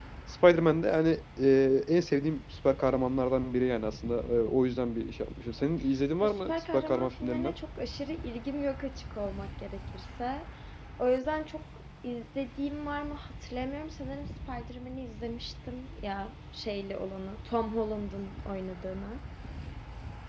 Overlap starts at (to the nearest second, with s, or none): 6 s